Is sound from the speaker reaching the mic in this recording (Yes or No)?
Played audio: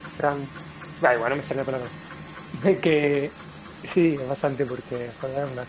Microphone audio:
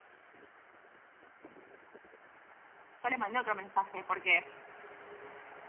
No